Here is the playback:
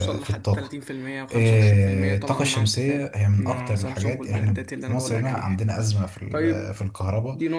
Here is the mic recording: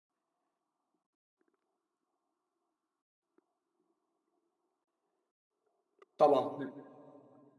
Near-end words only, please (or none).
طبعا